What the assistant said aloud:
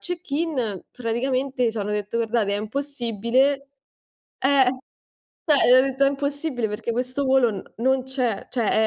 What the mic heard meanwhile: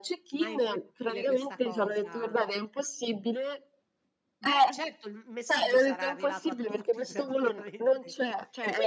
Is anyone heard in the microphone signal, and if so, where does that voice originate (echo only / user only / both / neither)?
both